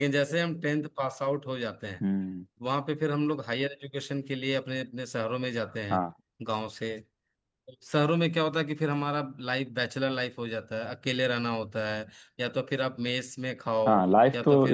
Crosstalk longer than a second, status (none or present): none